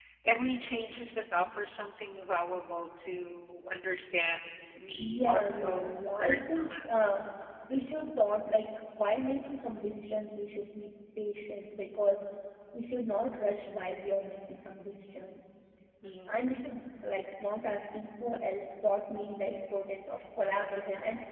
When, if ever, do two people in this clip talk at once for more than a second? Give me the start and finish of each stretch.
5.0-6.8

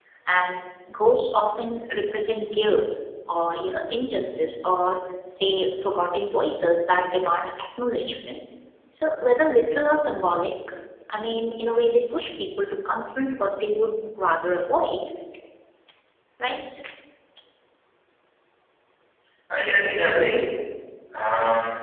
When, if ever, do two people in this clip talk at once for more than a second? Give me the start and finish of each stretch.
none

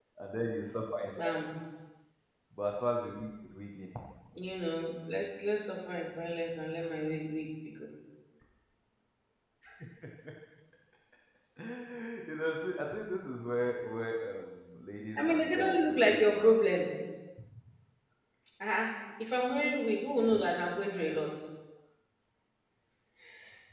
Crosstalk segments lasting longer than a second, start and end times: 15.2-16.6

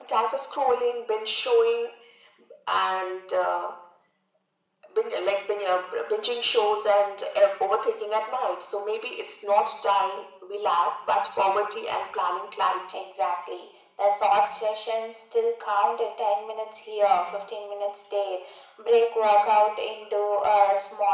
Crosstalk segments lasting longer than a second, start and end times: none

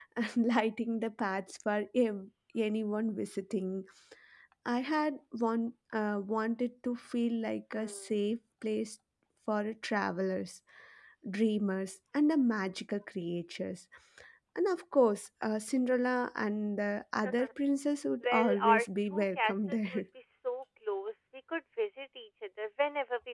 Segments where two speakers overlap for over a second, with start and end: 18.2-20.0

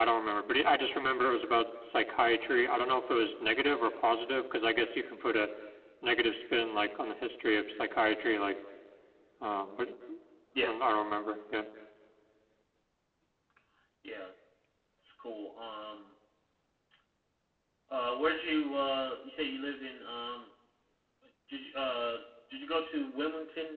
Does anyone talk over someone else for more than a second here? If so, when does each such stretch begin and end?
none

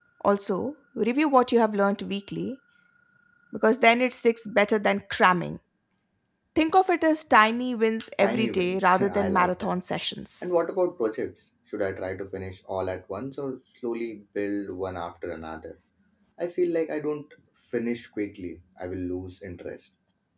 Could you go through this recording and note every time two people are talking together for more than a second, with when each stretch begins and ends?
8.2-9.8

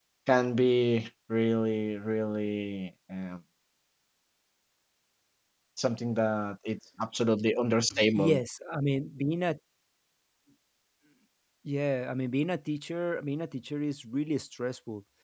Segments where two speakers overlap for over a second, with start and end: none

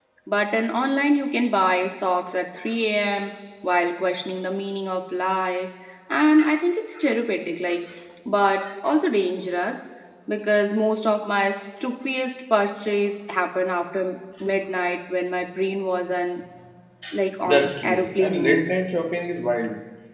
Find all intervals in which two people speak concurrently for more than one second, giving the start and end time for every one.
17.5-18.8

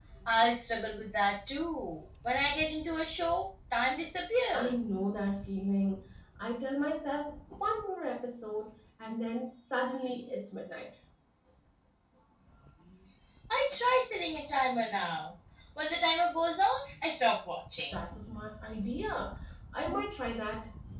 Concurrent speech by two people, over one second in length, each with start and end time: none

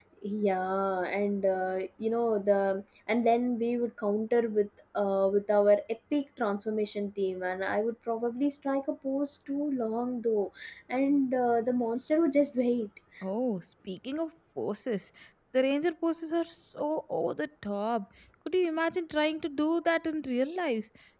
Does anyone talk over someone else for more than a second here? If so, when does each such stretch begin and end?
none

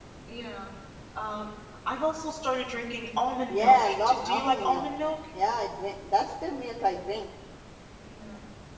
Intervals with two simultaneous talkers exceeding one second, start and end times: 3.5-4.9

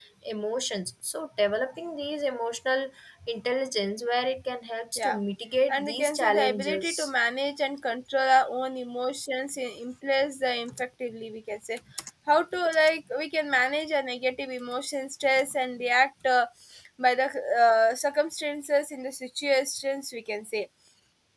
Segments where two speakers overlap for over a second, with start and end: 5.7-7.1

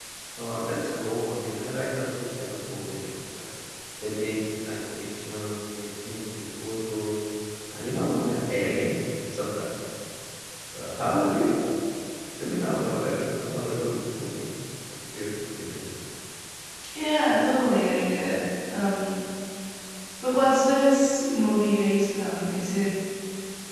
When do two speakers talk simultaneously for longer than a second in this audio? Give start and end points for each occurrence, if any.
none

